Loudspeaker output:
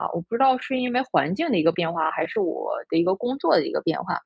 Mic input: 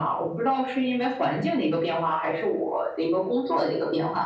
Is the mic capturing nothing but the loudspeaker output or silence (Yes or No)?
Yes